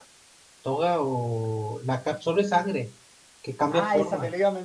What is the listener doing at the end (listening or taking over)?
taking over